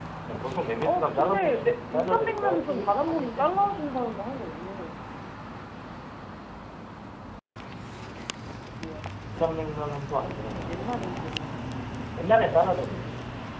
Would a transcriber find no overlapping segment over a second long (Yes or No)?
No